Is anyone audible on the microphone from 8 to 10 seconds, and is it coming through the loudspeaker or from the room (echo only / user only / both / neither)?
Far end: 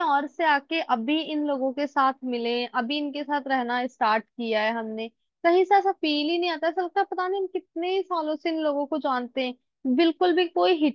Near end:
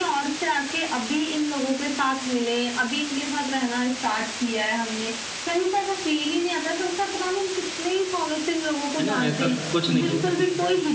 both